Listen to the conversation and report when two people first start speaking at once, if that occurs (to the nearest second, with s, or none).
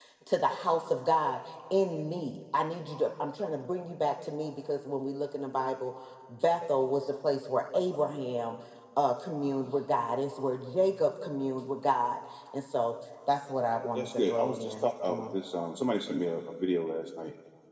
14 s